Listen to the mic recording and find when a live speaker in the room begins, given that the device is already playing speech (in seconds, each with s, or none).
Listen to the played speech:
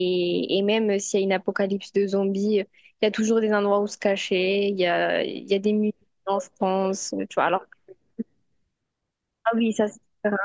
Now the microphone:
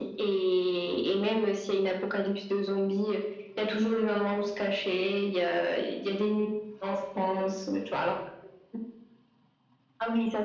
none